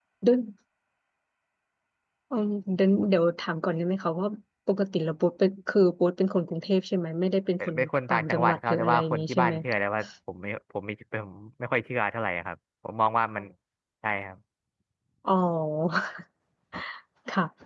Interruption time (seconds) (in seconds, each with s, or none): 7.6 s